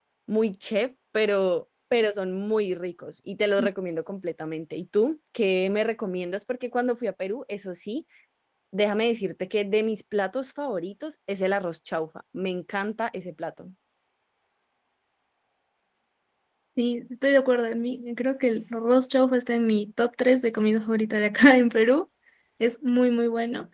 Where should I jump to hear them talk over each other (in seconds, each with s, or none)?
none